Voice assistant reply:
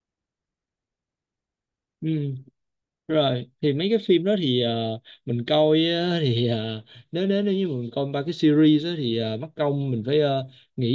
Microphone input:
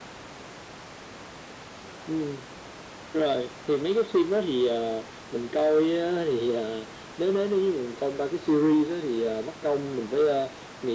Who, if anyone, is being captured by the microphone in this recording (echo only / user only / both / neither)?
echo only